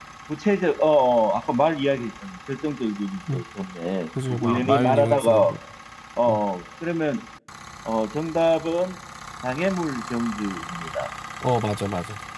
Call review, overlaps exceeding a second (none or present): present